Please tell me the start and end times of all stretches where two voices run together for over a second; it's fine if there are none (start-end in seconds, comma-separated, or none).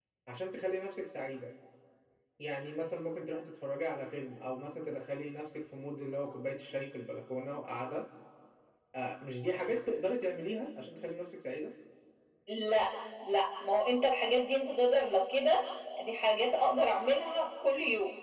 none